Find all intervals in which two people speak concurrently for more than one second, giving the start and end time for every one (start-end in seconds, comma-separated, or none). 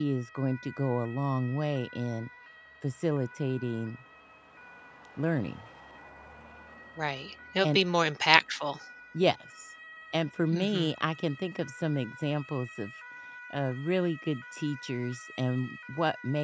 none